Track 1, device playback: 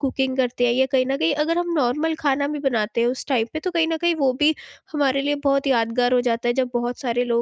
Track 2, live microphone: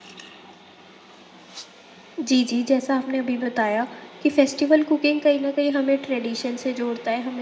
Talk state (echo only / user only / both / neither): user only